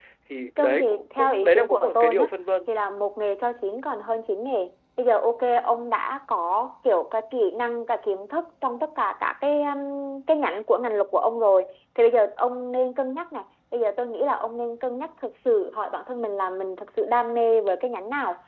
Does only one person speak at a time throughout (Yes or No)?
No